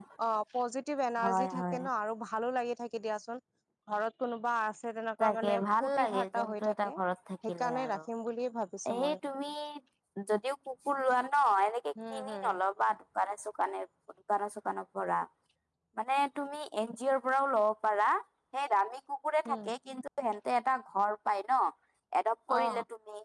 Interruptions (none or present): present